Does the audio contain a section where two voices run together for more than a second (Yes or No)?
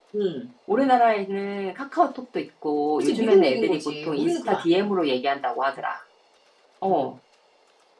Yes